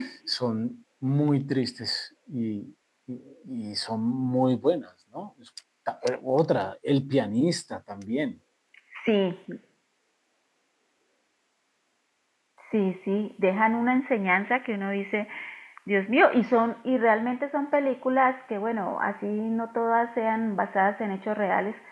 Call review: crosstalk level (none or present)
none